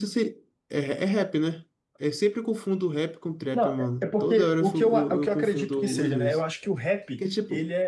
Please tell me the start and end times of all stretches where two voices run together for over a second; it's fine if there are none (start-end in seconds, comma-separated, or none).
3.5-6.4